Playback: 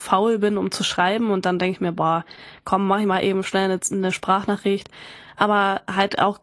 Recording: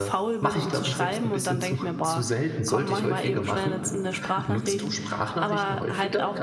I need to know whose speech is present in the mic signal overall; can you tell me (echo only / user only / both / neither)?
both